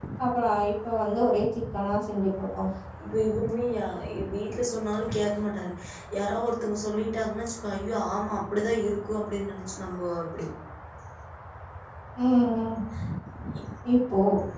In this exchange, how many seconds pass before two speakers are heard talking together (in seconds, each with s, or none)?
none